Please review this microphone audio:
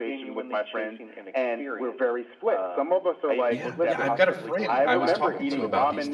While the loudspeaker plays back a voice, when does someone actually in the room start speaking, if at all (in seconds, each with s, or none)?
3.5 s